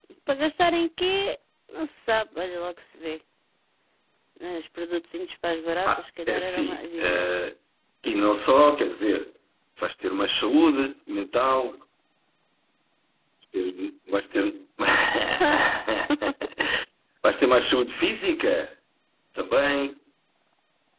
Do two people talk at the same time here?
Yes, from 5.9 s

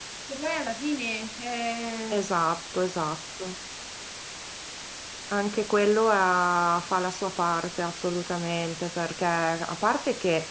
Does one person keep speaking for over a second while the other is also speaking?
No

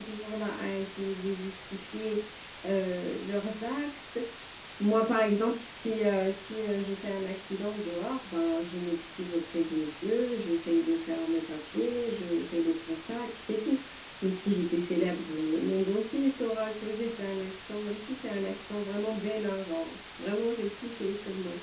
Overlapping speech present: No

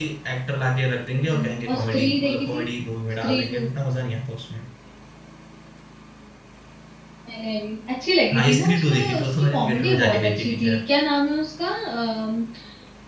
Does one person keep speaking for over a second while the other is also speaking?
Yes, from 1.1 s

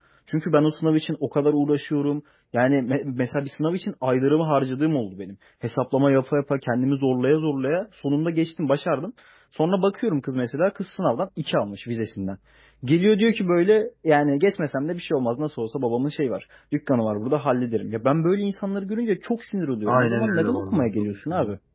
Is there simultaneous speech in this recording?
Yes, from 19.9 s

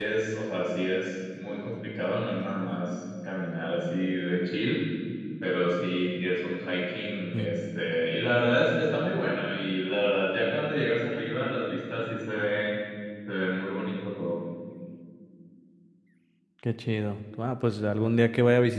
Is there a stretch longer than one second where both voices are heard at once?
No

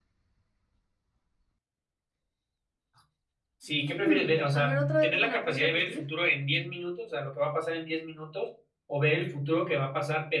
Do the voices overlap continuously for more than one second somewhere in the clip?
Yes, from 3.9 s

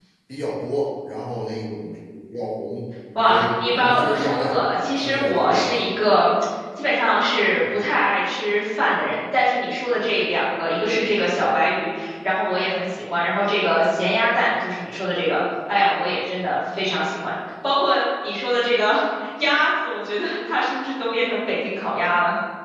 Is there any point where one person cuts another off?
Yes, from 3.1 s

